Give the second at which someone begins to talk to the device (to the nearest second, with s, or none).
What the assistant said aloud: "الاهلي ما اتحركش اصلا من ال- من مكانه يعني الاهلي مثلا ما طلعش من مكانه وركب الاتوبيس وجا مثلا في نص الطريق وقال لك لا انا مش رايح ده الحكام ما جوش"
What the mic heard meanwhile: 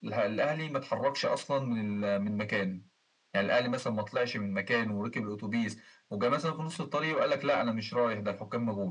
none